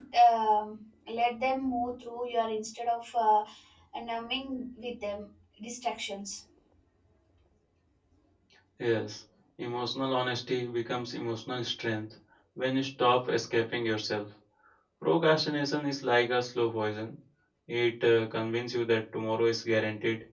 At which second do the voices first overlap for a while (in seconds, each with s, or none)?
none